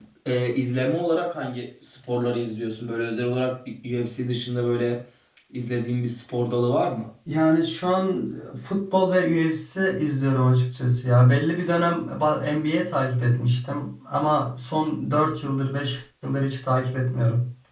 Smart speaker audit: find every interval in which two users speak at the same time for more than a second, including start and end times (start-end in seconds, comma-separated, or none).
none